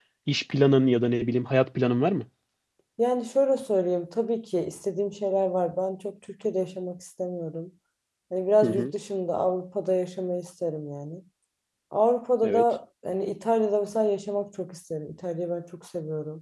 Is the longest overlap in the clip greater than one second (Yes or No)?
No